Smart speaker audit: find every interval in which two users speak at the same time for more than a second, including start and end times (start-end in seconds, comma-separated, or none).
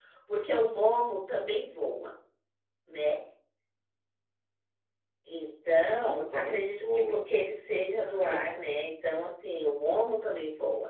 5.8-7.3